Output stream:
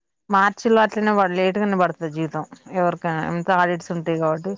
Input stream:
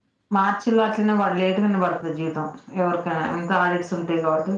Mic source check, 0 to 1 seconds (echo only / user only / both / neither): echo only